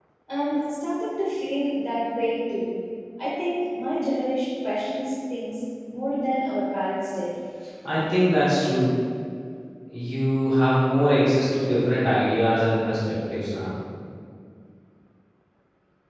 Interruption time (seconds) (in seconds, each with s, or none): none